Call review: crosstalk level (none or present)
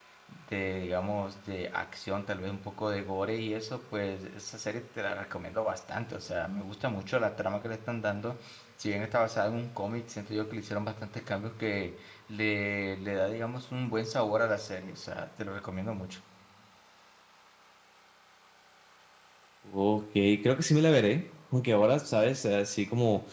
none